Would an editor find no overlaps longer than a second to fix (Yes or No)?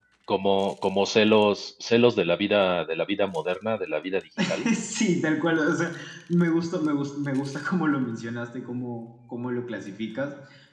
Yes